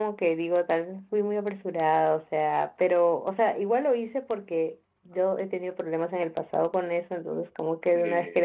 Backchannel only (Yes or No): Yes